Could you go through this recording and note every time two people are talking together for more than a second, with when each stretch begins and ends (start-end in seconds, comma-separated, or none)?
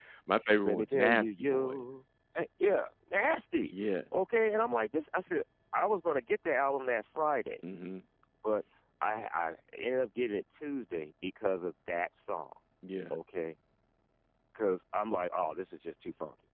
0.6-1.8